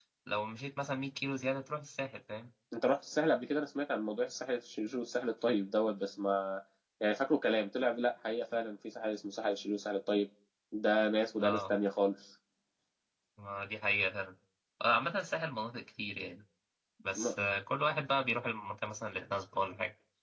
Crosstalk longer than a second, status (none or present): none